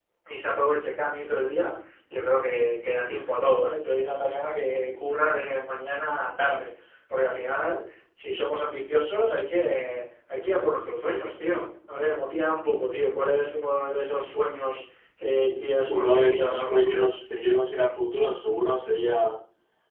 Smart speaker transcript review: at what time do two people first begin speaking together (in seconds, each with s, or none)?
15.8 s